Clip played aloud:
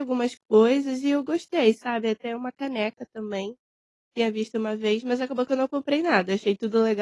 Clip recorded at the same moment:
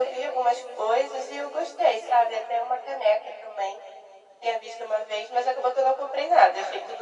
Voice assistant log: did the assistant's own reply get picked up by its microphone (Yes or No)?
Yes